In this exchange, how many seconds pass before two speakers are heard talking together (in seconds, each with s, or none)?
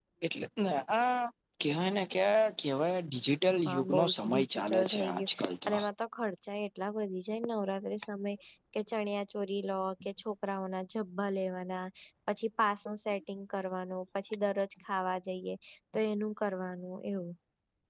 3.6 s